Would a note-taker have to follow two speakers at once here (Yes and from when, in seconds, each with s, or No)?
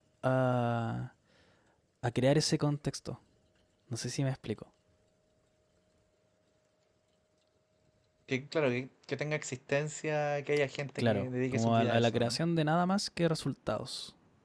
Yes, from 11.0 s